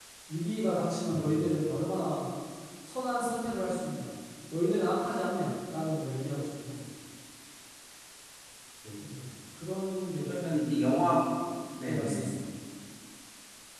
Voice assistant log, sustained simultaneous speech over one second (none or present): none